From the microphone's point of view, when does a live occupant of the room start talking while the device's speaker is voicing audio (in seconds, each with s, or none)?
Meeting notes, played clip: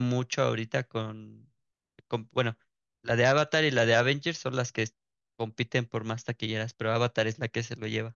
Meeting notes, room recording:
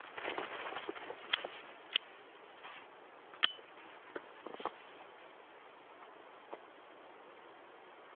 none